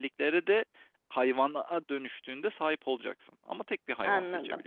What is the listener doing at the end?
taking over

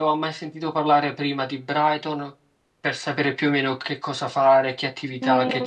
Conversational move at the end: taking over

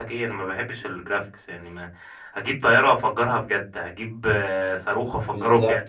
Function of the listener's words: listening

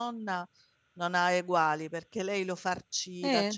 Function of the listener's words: listening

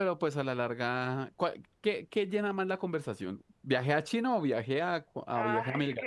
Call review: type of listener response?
taking over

